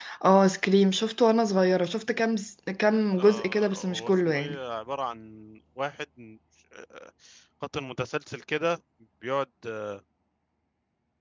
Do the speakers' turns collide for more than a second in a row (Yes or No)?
Yes